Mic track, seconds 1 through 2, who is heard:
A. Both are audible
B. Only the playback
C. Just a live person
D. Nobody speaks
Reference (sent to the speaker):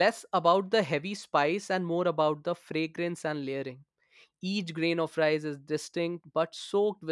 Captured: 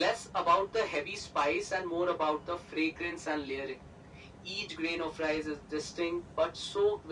B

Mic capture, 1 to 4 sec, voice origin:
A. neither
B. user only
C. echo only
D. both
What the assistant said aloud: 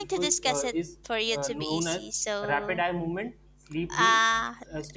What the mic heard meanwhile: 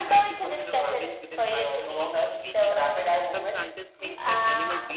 D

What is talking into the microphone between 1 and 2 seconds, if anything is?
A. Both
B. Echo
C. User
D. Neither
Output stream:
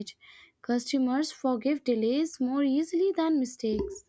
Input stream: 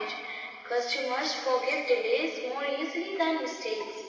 B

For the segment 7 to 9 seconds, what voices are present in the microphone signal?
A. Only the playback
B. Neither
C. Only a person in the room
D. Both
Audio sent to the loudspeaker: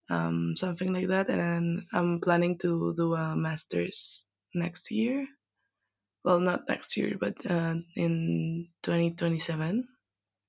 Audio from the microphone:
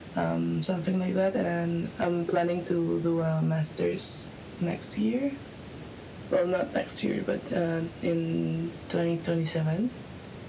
A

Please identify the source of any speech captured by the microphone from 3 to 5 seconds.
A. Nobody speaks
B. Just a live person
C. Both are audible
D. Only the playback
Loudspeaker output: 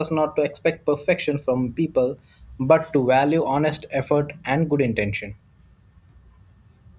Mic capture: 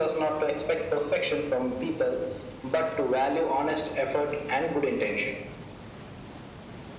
D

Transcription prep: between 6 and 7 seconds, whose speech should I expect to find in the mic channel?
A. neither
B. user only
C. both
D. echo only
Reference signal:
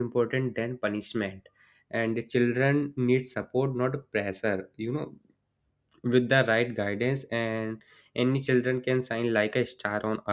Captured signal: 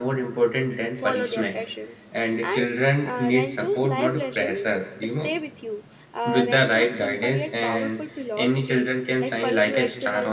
C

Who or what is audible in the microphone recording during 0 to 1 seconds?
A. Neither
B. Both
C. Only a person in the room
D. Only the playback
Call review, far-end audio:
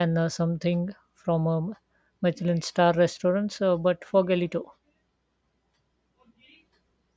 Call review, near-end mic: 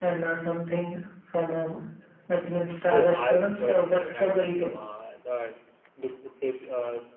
D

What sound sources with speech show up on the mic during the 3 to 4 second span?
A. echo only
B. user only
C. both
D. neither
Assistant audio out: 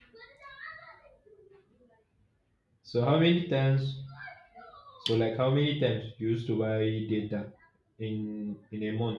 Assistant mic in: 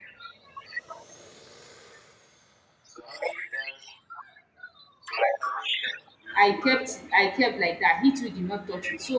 A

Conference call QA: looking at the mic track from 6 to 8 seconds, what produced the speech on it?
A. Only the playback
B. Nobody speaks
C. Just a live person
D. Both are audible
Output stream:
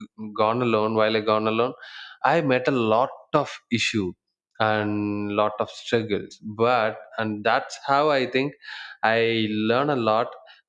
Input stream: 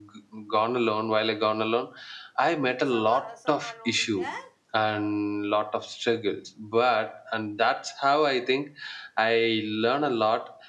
A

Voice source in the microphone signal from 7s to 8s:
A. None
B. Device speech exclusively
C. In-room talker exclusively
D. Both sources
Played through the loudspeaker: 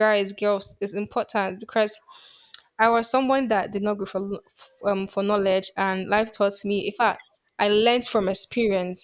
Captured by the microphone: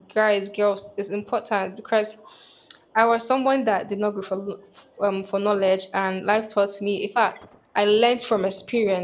B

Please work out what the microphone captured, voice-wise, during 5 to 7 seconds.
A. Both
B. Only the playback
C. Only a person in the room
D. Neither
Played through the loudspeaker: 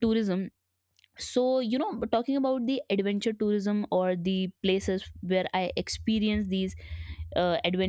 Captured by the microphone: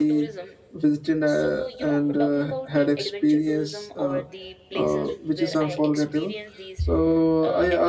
A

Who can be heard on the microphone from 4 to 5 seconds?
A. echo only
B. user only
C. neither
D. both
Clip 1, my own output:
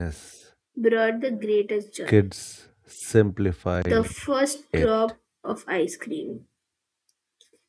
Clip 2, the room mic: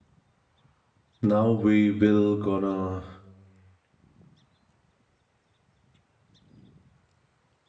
C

